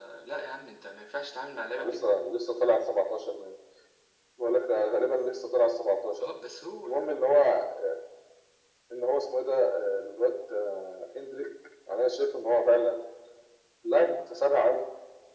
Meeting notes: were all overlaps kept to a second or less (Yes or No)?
Yes